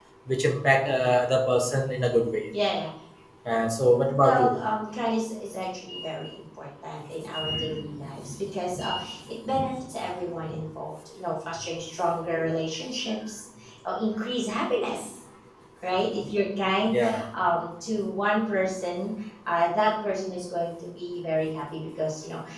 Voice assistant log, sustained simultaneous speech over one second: none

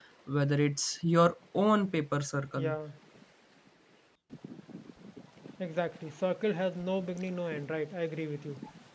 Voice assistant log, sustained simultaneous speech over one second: none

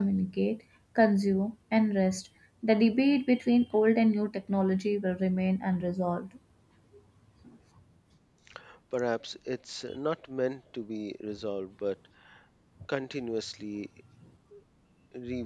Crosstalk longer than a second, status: none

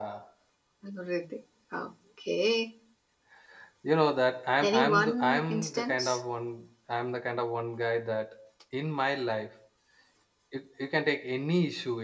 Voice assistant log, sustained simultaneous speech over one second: present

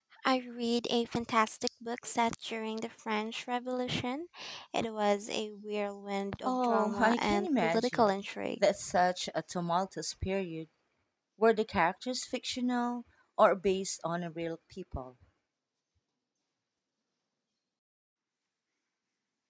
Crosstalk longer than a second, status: present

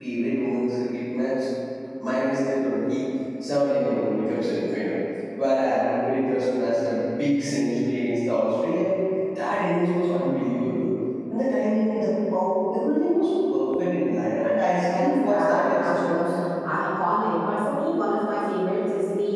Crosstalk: present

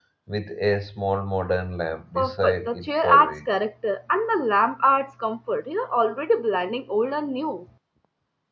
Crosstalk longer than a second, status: present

